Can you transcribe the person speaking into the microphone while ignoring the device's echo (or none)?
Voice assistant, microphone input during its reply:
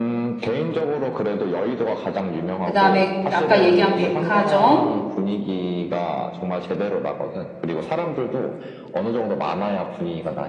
그 다음에 아까 얘기한 백화점,